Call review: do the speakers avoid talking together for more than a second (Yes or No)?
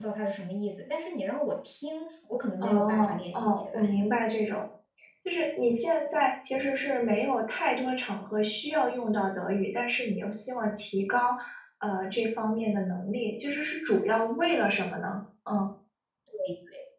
No